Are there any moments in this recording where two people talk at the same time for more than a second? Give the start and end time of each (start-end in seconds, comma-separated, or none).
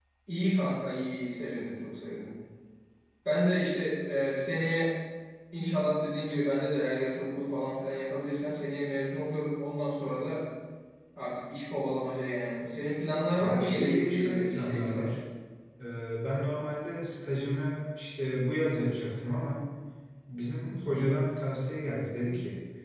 13.4-15.1